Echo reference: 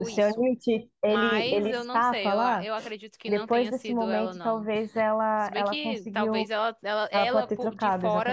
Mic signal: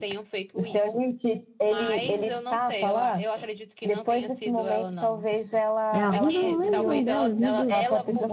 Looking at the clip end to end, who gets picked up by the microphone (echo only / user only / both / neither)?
both